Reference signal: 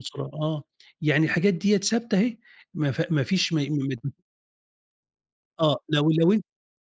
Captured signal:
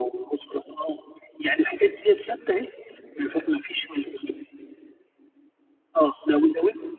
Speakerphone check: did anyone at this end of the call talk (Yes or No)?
No